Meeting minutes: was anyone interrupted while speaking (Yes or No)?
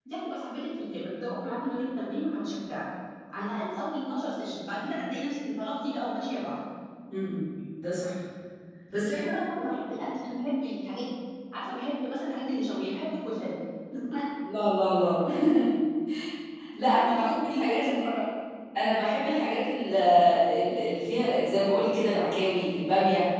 Yes